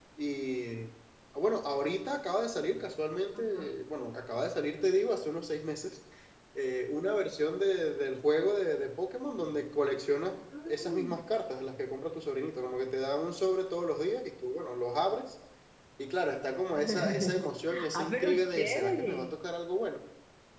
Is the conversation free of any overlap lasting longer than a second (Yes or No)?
No